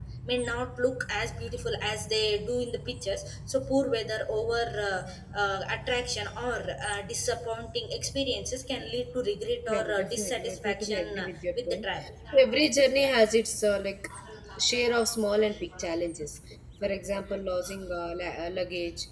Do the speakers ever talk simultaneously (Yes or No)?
Yes